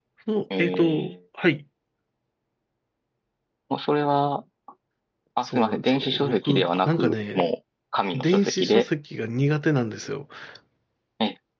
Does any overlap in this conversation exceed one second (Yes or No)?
Yes